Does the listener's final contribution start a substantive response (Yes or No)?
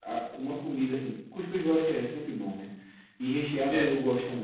No